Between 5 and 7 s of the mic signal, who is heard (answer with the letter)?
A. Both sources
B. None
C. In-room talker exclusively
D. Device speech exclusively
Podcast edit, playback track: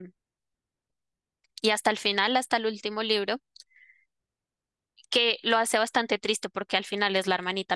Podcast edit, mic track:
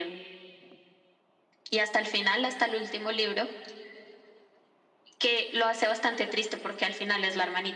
D